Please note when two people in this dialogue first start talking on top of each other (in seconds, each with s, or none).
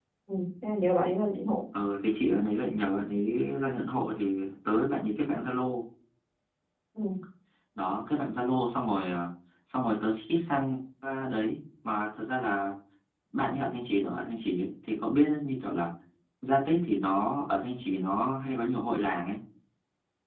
none